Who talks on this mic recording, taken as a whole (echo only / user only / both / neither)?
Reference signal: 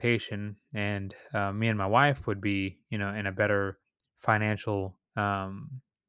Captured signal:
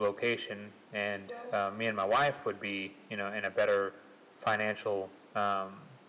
both